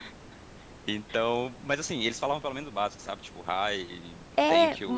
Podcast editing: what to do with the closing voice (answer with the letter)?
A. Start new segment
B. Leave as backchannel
A